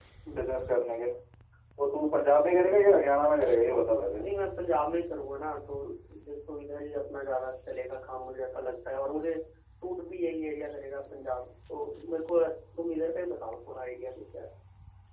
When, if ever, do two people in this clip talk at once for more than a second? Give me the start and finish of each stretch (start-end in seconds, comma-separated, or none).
none